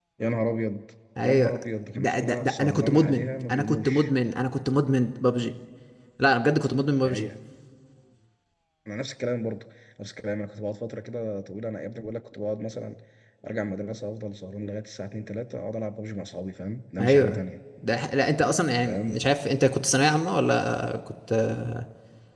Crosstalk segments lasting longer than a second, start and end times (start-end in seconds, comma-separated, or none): 2.0-4.1